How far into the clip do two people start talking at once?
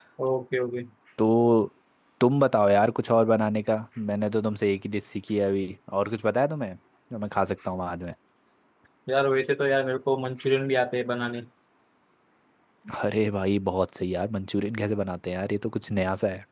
none

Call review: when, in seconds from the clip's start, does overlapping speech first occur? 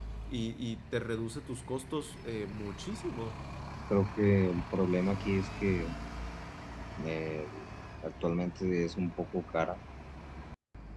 none

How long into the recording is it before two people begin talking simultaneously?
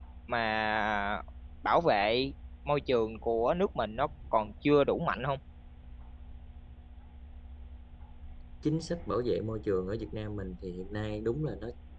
none

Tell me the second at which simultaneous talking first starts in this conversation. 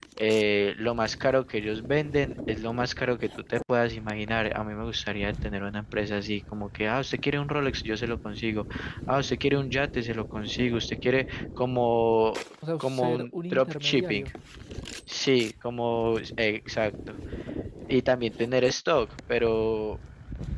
12.8 s

